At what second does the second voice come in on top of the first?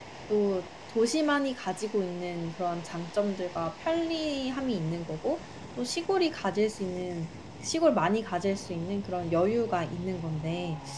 none

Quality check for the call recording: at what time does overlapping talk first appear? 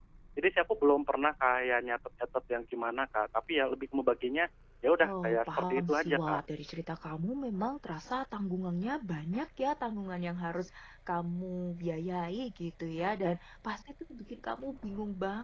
5.0 s

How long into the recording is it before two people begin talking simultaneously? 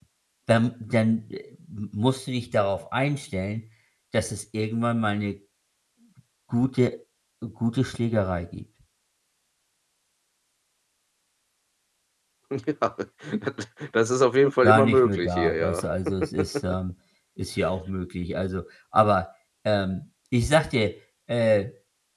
14.6 s

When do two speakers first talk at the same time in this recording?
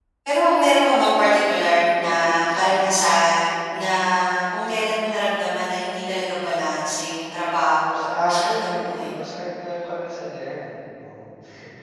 7.9 s

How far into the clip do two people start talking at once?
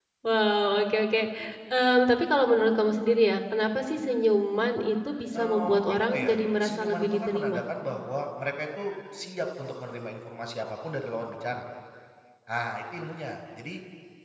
5.3 s

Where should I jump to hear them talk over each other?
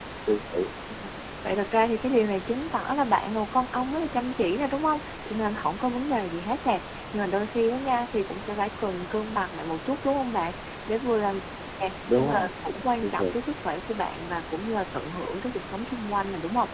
12.2 s

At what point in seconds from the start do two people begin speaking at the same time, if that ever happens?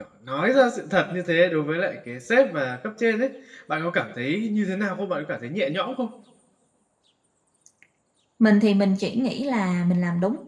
none

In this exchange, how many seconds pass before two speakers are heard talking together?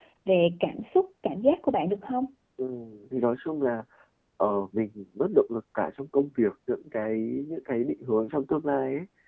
none

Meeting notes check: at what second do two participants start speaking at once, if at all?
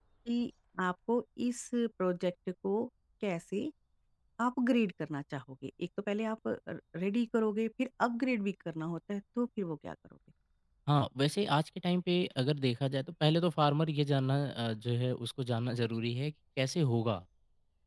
none

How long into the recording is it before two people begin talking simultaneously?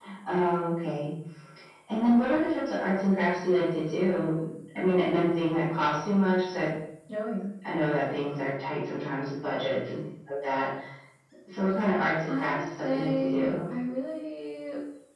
12.3 s

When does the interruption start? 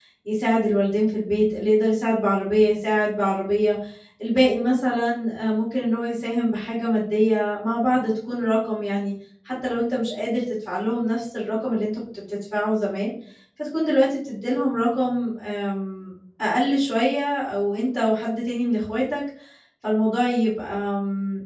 none

